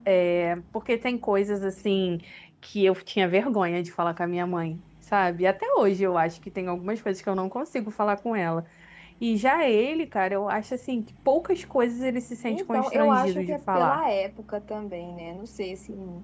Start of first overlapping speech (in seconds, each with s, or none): 12.5 s